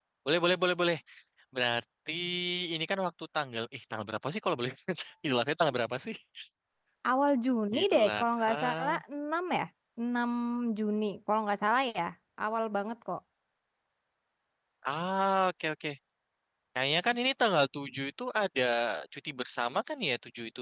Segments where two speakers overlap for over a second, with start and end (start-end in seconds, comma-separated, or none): 7.8-9.0